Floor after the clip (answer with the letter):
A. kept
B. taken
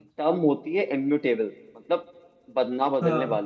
A